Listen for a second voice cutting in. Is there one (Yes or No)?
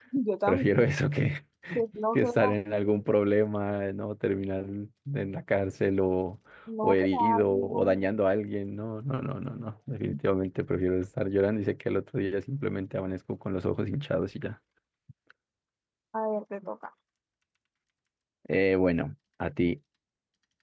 Yes